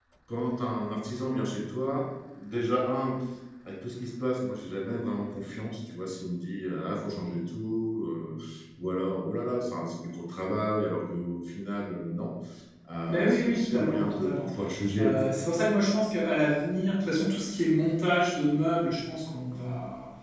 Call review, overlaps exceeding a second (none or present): present